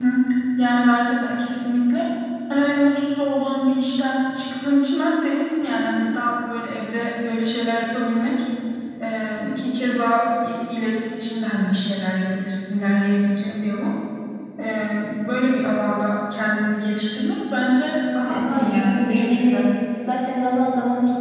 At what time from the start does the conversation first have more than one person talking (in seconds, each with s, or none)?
18.2 s